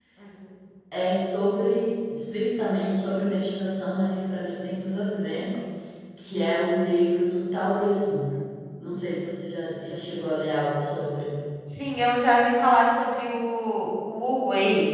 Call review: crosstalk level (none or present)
none